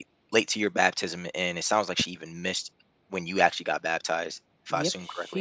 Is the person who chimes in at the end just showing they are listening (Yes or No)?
No